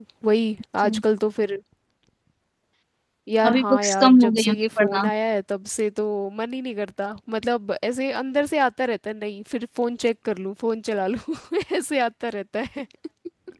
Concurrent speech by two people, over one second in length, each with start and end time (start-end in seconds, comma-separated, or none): 3.5-5.1